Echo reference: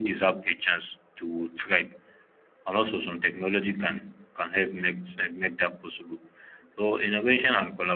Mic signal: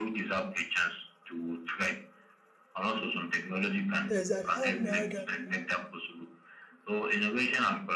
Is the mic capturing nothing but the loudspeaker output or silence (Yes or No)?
No